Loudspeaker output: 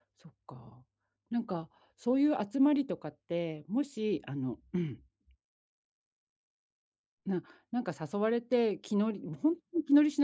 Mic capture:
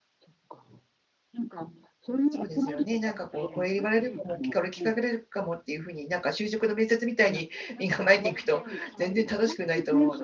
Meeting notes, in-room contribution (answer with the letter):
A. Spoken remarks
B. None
A